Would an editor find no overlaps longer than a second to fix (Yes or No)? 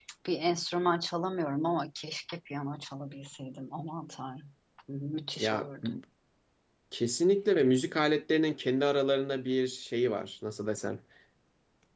Yes